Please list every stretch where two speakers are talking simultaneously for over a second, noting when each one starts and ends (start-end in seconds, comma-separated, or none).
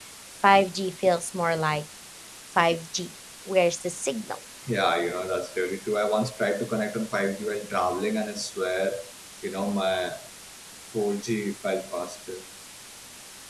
none